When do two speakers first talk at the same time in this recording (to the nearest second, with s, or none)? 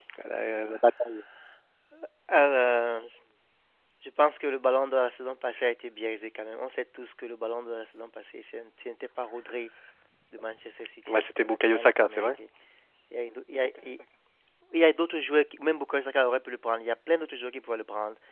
11 s